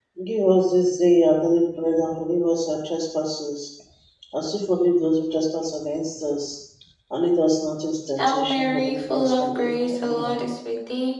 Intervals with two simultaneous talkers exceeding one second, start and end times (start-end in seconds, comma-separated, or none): 8.2-10.5